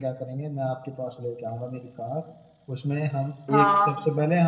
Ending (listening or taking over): listening